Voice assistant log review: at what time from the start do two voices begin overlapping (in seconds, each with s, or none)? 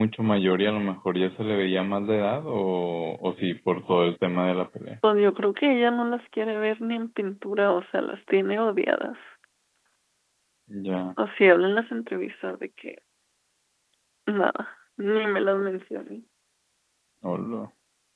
none